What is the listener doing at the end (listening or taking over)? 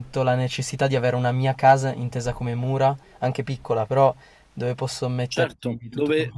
taking over